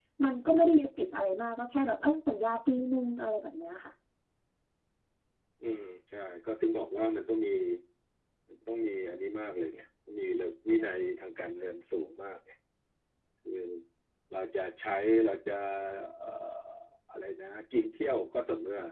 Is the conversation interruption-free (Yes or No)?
Yes